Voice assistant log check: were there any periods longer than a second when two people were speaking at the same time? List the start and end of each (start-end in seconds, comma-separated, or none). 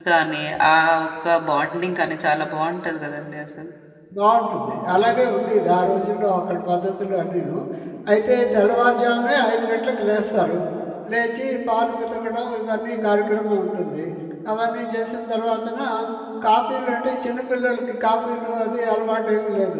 none